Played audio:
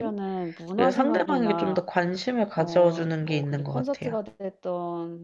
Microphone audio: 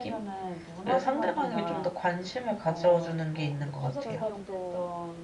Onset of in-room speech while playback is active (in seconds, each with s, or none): 3.8 s